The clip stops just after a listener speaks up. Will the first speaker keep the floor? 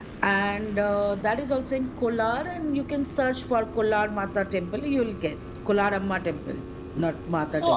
No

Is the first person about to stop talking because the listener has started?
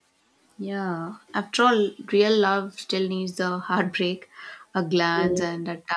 No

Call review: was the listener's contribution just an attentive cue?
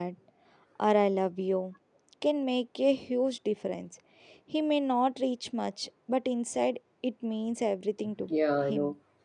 No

